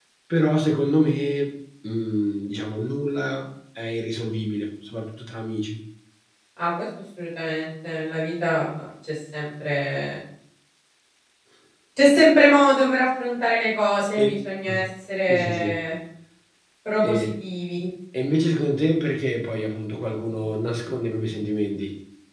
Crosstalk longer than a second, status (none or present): none